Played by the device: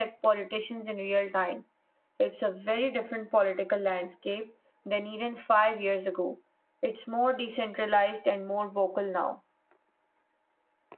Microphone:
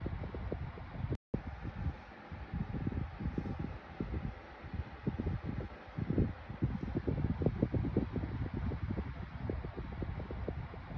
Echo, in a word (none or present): none